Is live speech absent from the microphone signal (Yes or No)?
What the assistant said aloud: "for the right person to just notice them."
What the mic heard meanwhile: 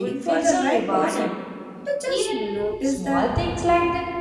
No